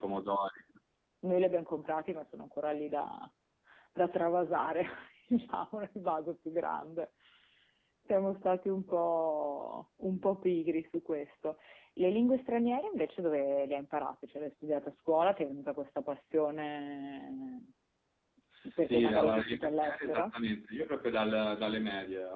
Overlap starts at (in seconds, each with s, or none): 18.8 s